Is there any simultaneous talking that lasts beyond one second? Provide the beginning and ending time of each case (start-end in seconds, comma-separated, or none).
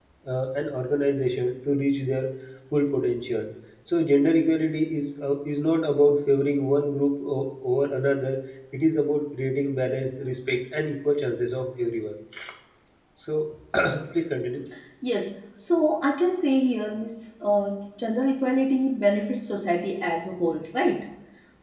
none